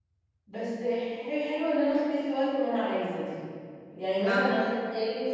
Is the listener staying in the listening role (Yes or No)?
Yes